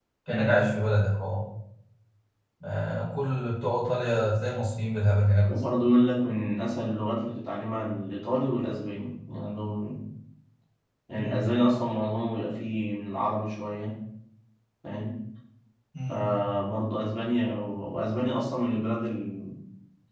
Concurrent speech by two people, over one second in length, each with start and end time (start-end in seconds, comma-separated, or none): none